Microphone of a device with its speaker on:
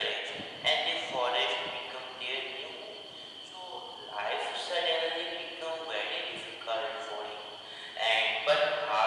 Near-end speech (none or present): none